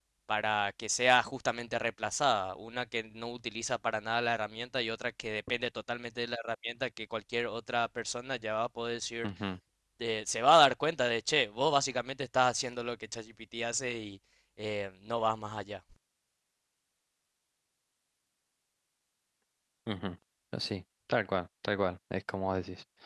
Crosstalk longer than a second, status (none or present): none